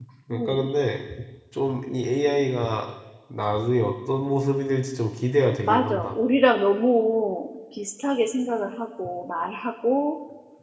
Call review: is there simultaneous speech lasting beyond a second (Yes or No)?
No